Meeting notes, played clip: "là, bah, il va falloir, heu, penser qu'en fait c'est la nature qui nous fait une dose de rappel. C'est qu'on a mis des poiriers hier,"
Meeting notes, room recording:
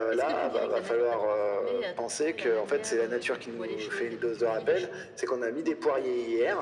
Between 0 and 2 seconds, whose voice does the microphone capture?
both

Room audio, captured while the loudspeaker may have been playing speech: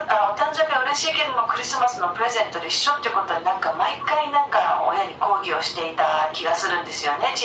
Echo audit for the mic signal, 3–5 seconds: echo only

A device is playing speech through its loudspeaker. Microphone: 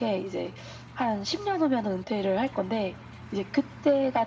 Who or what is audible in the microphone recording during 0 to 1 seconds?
echo only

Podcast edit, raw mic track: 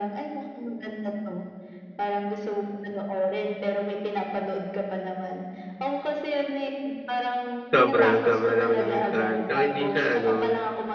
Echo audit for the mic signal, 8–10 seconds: both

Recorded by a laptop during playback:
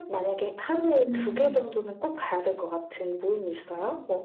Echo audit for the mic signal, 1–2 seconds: both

